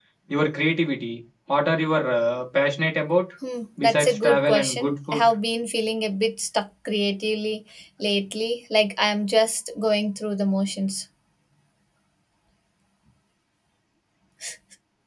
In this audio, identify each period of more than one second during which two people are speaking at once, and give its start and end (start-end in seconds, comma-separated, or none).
3.8-5.3